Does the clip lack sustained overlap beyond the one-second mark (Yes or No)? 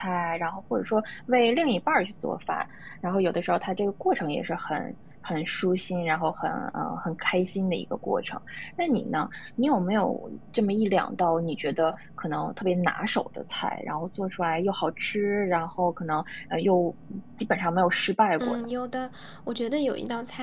Yes